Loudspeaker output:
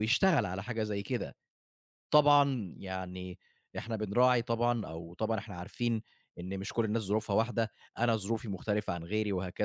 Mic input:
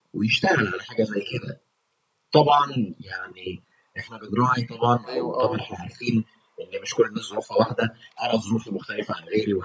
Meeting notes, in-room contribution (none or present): present